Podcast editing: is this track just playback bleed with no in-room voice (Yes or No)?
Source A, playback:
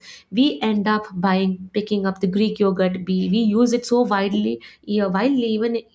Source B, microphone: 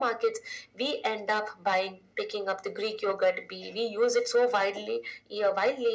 Yes